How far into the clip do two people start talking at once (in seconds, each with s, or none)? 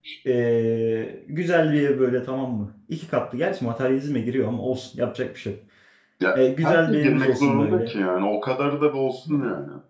6.6 s